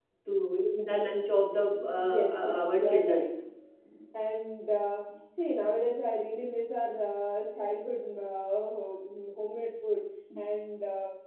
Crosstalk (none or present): present